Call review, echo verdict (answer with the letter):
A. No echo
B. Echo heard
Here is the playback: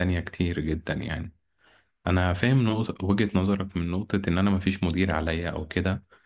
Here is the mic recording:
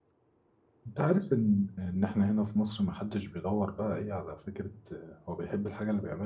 A